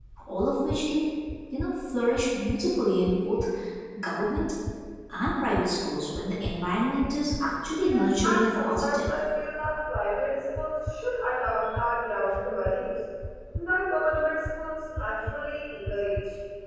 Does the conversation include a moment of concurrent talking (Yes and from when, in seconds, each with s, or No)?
Yes, from 7.8 s